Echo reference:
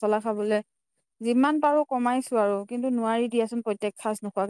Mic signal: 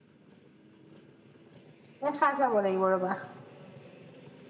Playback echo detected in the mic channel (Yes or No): No